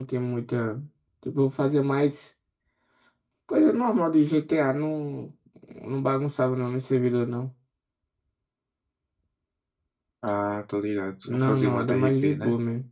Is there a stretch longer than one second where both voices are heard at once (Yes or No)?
Yes